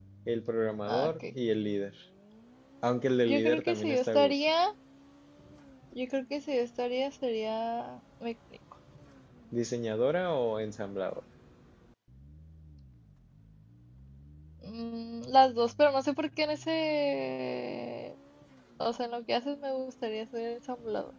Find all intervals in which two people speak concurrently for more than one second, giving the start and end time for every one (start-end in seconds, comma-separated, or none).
3.2-4.5